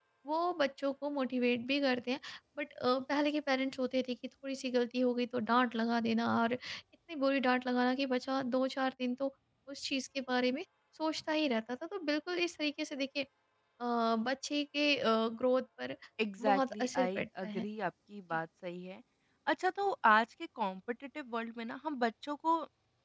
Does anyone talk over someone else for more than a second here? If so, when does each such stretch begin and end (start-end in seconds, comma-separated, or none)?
16.4-17.7